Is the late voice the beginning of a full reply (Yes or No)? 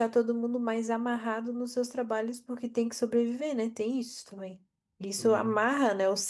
No